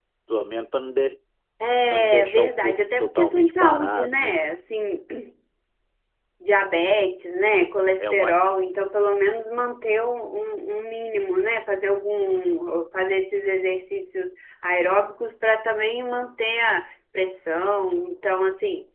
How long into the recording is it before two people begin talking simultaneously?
2 s

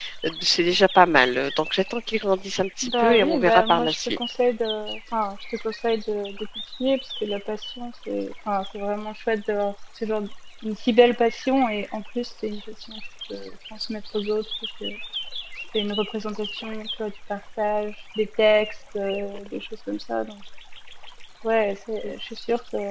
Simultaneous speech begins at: 3 s

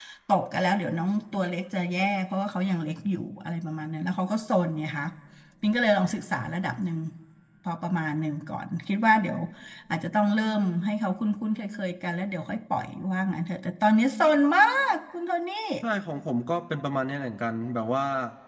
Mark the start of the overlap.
none

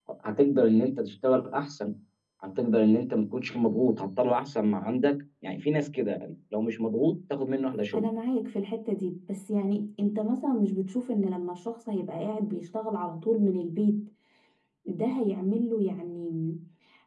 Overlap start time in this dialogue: none

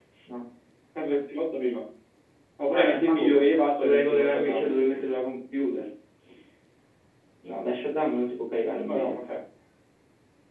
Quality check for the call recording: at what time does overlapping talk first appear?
3 s

